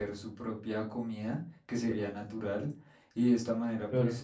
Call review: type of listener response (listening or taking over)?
listening